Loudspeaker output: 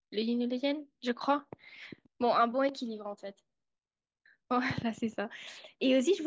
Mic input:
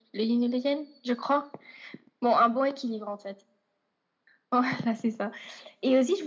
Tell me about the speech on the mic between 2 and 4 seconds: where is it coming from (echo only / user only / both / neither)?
echo only